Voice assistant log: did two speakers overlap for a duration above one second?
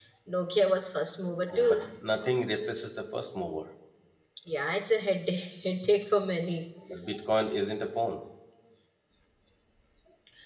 No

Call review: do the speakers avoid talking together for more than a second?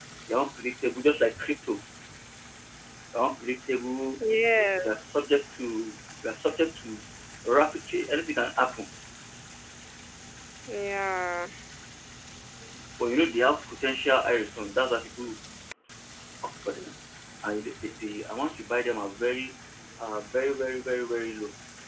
Yes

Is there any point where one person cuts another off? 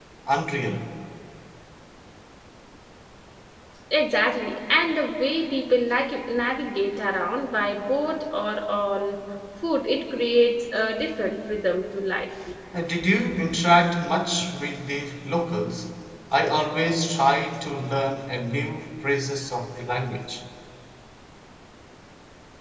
No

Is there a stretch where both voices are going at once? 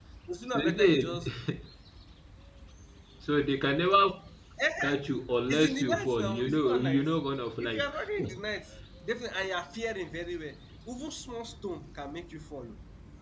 Yes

